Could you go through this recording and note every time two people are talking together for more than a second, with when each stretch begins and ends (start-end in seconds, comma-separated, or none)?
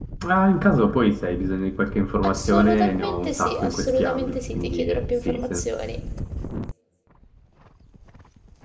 2.2-5.6